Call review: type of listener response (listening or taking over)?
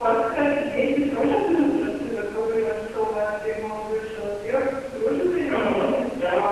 taking over